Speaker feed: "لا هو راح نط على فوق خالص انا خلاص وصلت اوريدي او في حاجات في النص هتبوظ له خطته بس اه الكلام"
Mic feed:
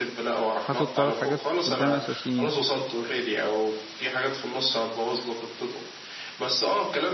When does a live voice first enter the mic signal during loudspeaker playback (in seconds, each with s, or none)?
0.6 s